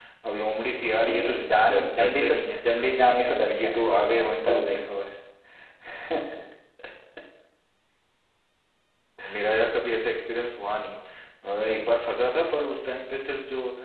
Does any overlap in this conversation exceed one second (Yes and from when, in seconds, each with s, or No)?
Yes, from 1.0 s